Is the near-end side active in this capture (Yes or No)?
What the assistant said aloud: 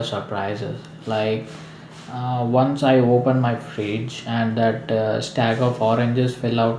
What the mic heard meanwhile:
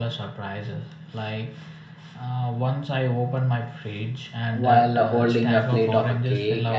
Yes